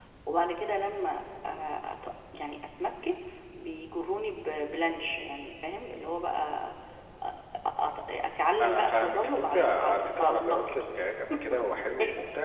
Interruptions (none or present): present